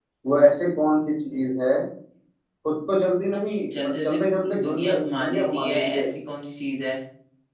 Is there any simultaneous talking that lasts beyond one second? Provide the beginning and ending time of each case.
3.7-6.1

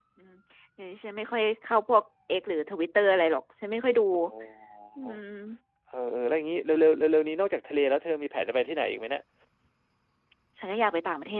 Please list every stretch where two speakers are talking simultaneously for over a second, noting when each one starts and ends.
none

